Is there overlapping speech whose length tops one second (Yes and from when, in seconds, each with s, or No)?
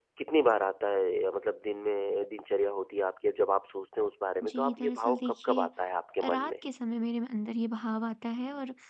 Yes, from 4.4 s